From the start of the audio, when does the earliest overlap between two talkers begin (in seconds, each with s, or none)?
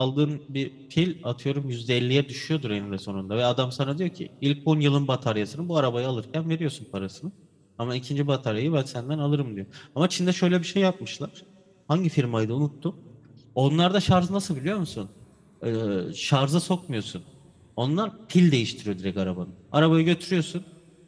none